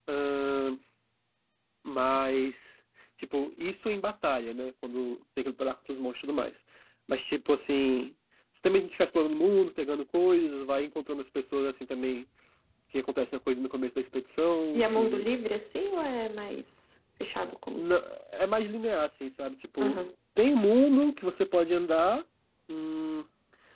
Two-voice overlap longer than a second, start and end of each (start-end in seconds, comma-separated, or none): none